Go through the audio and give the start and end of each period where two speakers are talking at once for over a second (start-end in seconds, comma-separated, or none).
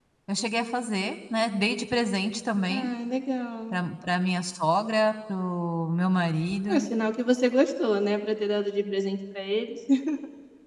none